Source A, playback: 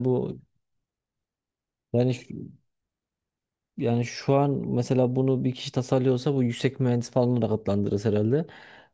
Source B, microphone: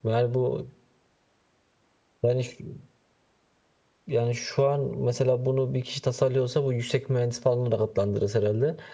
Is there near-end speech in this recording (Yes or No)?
No